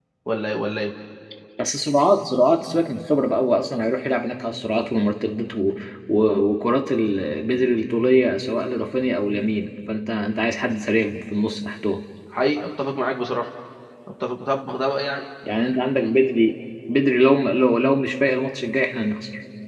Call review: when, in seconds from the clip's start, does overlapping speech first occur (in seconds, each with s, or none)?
none